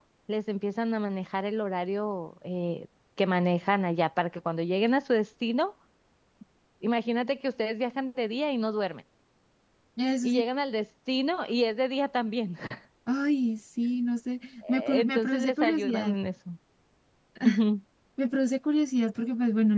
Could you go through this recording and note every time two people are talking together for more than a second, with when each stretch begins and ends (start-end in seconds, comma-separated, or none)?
14.7-16.1